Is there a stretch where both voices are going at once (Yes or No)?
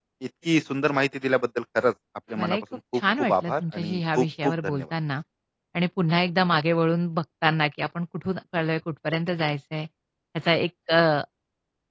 Yes